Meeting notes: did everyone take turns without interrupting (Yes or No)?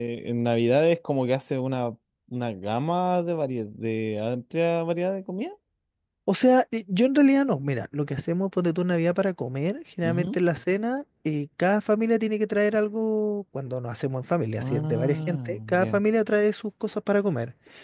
No